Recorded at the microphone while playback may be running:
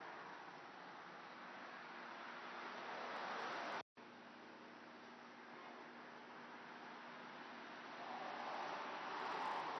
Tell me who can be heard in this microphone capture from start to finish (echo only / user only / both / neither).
neither